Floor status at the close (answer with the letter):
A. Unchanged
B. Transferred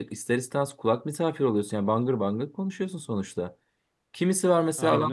A